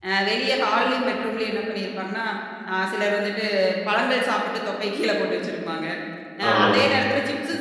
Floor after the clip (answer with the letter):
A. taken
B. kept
B